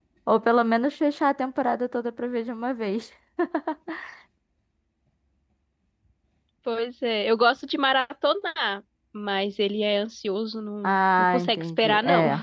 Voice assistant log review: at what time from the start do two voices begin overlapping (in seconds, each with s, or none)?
10.8 s